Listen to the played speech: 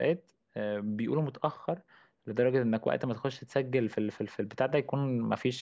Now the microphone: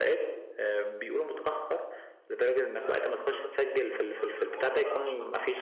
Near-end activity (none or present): present